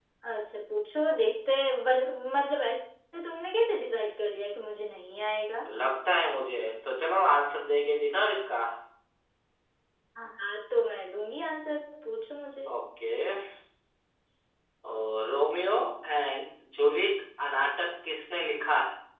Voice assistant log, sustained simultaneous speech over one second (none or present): none